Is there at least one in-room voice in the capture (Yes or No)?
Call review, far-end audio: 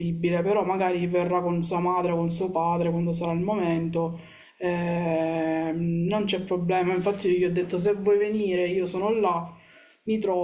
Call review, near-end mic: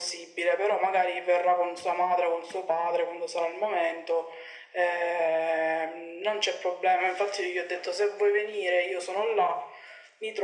No